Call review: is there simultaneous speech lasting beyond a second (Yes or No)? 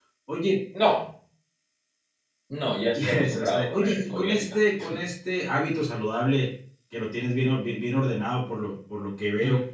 Yes